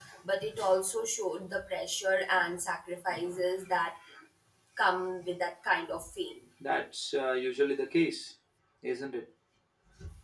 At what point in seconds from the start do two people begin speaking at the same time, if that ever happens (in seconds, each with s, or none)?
none